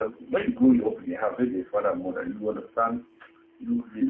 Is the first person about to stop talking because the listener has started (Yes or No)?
No